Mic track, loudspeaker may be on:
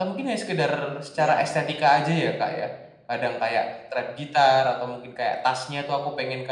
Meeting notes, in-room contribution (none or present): present